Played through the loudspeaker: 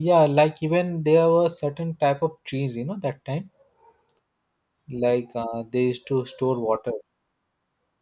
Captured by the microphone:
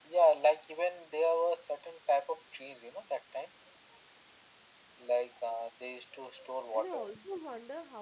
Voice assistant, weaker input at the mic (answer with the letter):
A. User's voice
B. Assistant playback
A